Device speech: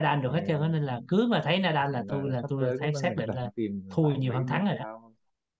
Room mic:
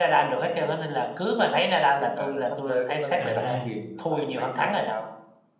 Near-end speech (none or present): present